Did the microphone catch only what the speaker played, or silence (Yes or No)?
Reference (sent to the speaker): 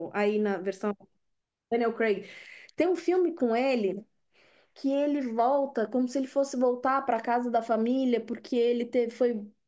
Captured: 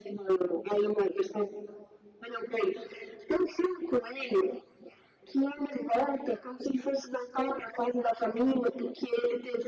Yes